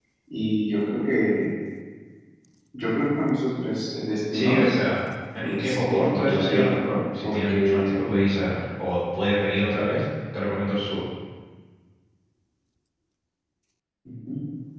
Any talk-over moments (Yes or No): Yes